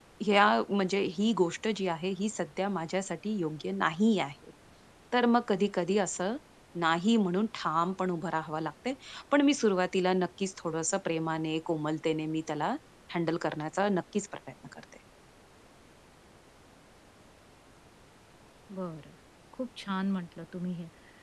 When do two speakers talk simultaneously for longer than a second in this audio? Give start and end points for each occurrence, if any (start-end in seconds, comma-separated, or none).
none